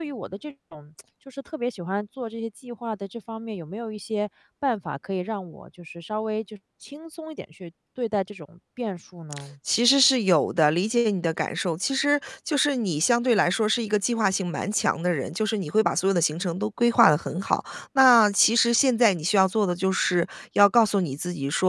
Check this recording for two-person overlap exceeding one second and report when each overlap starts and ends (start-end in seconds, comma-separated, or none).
none